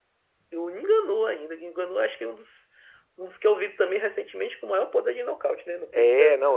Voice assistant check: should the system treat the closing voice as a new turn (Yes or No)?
Yes